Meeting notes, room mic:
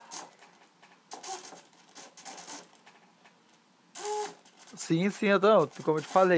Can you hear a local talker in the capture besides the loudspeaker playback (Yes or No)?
Yes